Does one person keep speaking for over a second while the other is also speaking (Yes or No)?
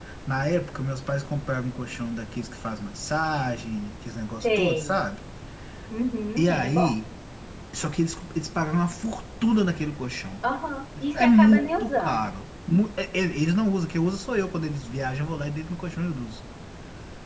Yes